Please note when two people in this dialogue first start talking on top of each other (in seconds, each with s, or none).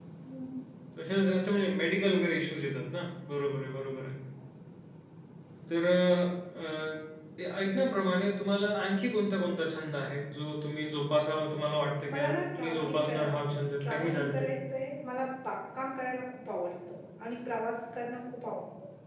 12.1 s